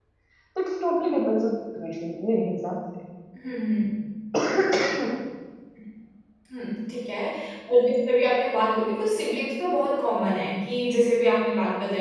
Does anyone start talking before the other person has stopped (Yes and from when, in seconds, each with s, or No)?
No